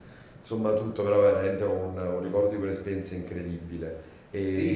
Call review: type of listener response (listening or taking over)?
taking over